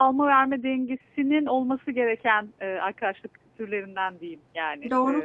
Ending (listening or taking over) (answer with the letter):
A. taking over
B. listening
A